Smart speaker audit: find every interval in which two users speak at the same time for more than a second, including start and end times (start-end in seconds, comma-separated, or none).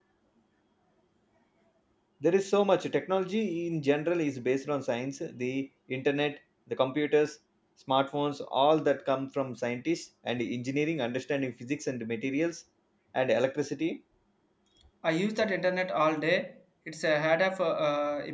none